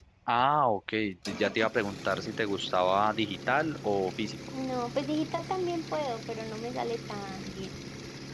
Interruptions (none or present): none